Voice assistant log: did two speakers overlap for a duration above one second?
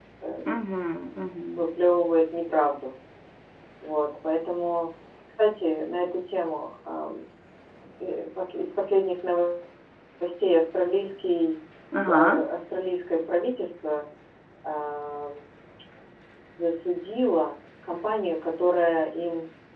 No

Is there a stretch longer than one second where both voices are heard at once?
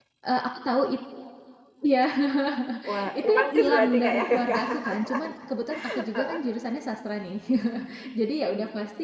Yes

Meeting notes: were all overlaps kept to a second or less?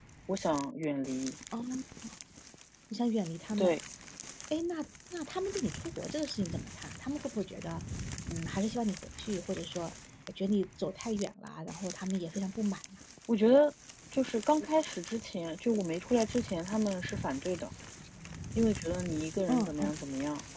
Yes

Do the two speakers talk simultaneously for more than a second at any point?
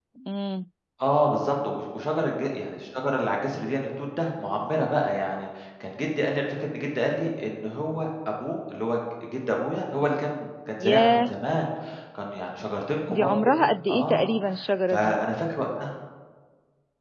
Yes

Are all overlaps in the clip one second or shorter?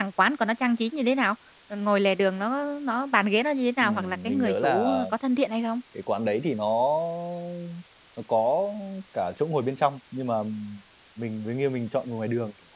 No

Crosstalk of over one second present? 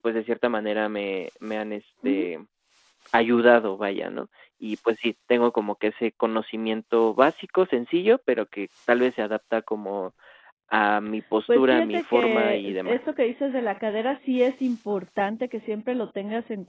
Yes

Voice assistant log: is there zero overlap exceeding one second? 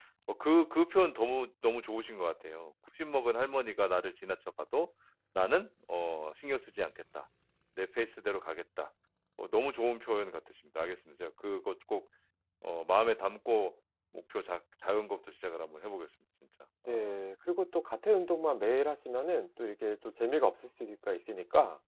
Yes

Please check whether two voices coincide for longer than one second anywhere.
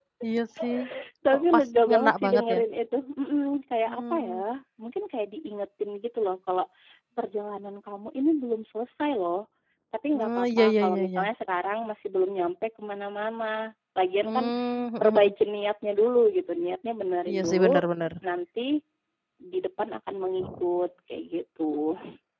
Yes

